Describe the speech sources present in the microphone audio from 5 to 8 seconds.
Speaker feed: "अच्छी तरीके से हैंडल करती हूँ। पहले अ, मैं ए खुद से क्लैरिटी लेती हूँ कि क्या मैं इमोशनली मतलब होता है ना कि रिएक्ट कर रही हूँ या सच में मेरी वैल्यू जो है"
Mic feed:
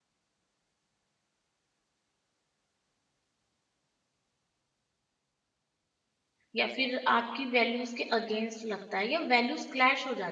user only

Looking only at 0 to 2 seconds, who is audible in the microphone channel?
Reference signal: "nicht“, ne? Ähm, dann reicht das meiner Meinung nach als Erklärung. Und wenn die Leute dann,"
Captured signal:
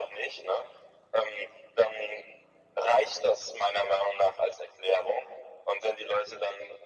echo only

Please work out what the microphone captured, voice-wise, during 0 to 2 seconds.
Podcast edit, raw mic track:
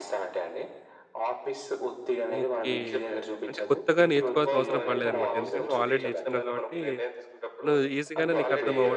echo only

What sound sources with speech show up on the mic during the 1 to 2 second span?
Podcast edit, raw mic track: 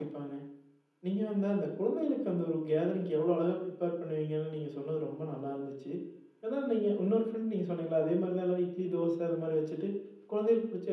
user only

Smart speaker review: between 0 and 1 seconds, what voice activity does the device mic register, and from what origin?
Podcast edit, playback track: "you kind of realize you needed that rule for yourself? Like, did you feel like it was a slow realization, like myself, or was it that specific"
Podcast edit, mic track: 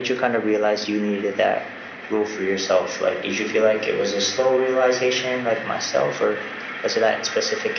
echo only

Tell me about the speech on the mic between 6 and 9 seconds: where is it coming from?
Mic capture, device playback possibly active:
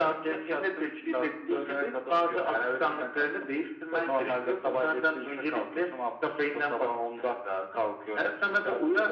echo only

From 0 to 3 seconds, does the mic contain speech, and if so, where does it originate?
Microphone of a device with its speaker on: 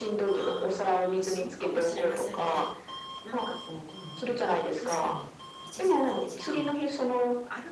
both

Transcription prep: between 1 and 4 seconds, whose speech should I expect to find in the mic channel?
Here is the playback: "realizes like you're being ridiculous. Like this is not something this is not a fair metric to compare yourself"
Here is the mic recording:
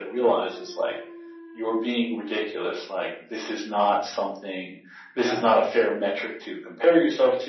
echo only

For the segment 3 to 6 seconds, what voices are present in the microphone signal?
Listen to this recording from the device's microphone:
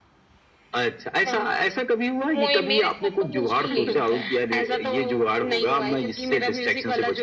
both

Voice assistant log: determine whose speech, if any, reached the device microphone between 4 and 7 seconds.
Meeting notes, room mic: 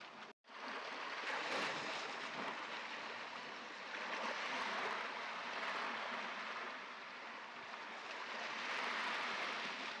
neither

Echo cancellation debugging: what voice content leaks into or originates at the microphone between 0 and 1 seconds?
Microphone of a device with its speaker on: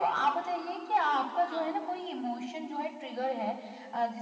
echo only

